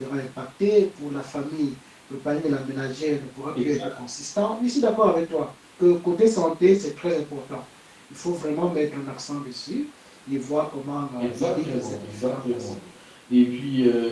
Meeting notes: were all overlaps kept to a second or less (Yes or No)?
No